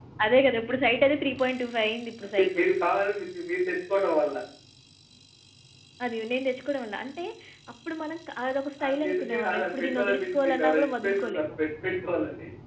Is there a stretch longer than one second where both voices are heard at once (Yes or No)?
Yes